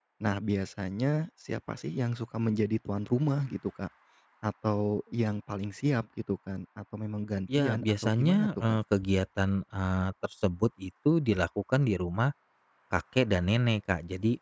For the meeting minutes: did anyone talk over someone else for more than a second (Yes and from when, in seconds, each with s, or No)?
Yes, from 7.5 s